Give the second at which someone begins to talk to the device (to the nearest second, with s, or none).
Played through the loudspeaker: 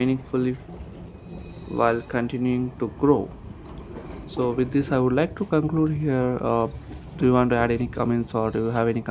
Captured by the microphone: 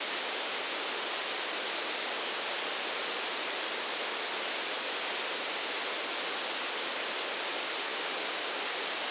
none